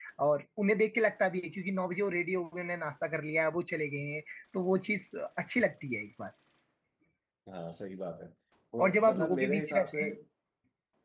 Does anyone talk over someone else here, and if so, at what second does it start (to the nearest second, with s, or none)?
9 s